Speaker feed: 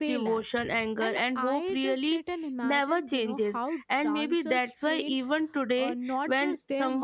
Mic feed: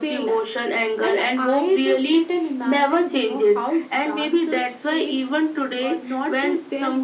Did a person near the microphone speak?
No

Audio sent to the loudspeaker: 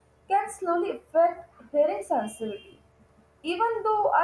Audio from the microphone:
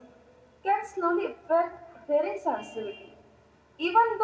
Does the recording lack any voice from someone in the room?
Yes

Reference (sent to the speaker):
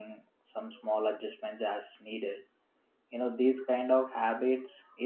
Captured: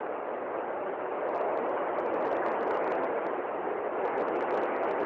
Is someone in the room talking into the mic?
No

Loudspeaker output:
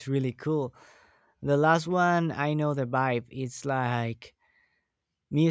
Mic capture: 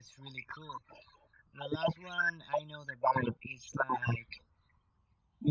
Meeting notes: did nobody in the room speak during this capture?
Yes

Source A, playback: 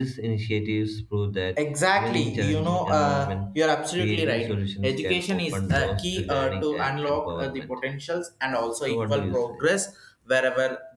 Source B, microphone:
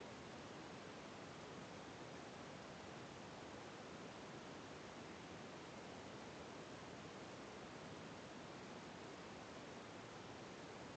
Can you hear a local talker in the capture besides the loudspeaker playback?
No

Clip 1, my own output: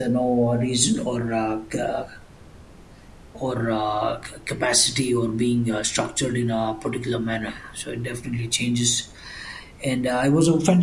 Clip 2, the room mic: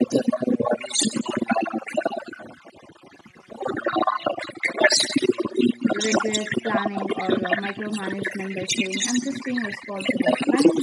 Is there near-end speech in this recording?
Yes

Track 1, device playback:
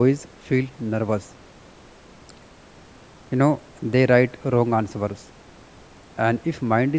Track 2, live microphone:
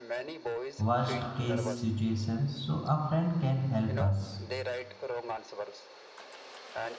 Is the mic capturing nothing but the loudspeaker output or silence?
No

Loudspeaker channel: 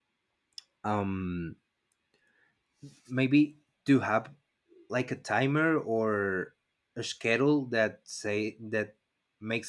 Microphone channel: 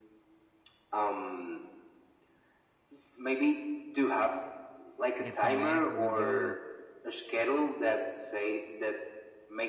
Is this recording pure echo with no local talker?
No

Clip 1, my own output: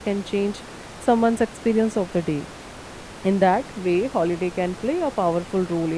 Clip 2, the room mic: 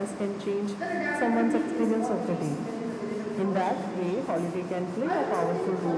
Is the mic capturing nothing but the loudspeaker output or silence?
No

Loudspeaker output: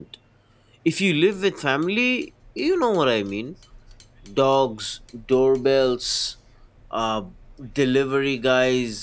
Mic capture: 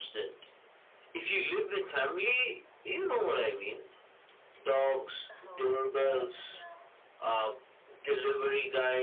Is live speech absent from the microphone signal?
No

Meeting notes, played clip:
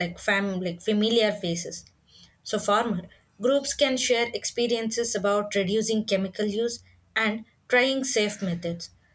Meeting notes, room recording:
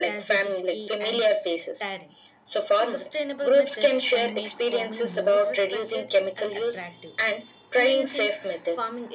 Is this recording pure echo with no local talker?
No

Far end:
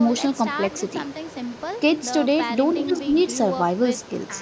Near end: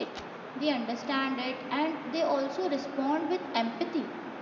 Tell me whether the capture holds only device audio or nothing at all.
No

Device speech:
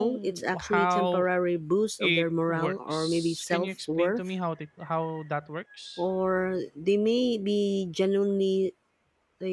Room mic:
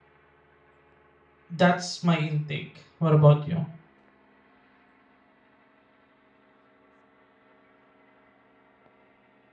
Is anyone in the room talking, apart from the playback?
Yes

